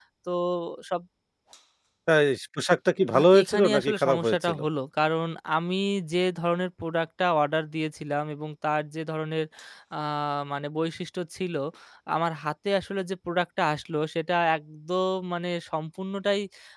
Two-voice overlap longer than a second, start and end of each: 3.1-4.6

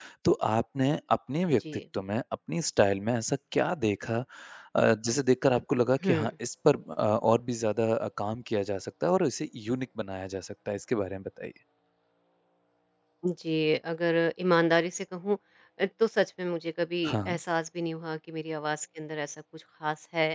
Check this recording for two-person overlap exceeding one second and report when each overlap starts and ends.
none

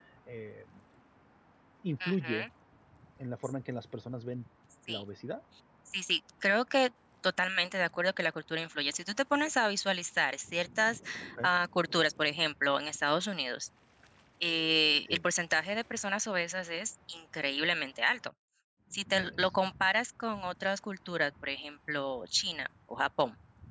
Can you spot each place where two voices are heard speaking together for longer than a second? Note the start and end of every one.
none

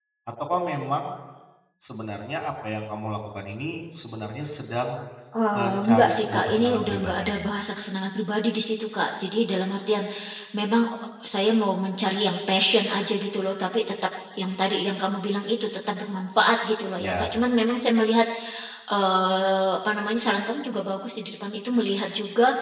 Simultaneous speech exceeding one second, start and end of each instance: 5.5-7.4

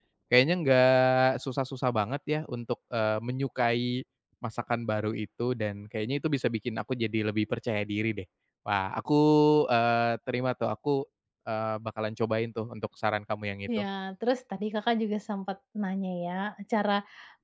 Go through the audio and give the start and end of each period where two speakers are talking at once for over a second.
none

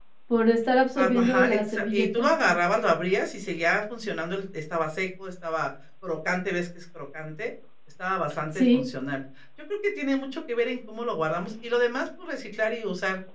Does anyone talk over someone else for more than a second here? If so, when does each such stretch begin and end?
1.0-2.5

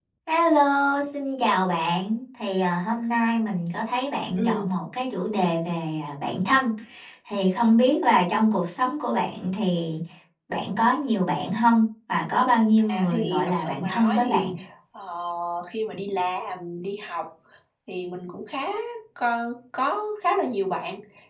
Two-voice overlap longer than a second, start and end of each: 12.9-14.5

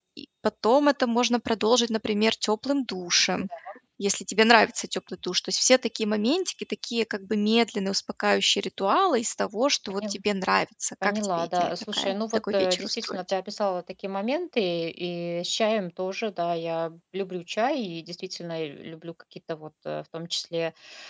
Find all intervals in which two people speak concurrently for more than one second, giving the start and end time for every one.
11.0-13.2

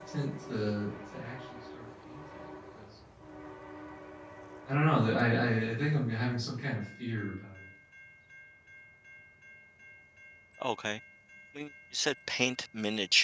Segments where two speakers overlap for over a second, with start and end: none

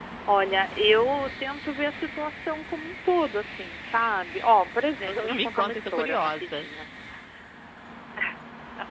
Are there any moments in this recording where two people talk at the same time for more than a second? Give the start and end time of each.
5.1-6.7

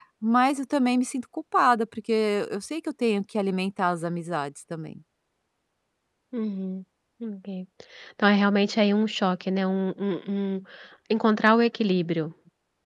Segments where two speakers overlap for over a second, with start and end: none

